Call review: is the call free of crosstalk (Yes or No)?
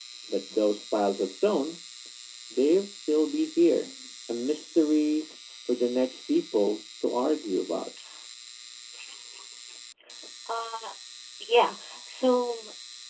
Yes